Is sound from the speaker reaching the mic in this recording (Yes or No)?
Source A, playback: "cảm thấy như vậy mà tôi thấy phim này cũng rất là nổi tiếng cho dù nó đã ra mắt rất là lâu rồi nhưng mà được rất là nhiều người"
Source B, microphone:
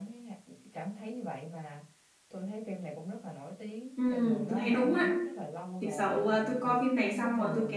Yes